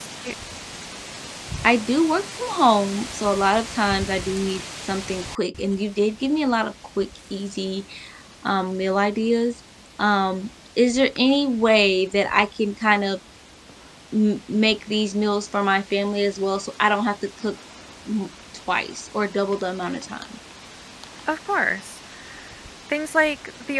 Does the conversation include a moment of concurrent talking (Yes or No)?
No